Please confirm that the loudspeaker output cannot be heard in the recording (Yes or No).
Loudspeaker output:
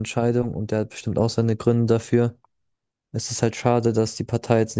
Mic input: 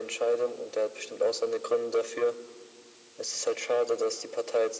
No